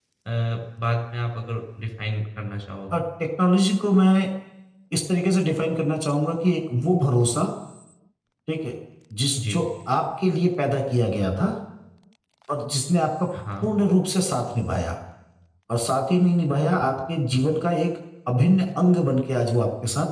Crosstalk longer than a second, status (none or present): none